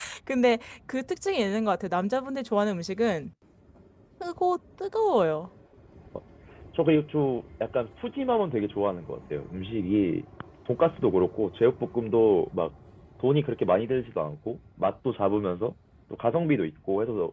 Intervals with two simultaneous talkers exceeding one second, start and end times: none

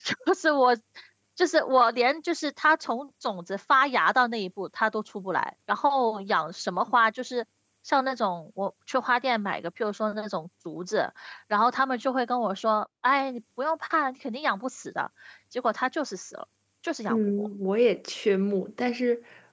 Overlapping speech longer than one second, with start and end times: none

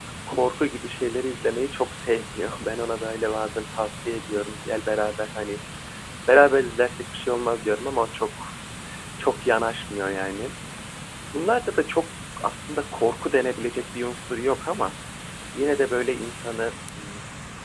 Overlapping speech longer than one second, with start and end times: none

